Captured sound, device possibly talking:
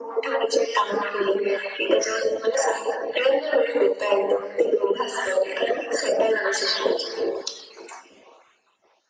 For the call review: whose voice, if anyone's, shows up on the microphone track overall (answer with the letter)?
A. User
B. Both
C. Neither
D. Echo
D